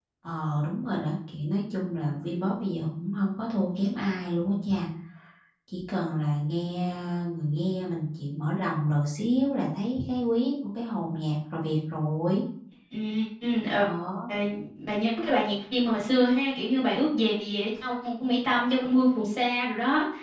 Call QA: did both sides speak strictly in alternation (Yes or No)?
Yes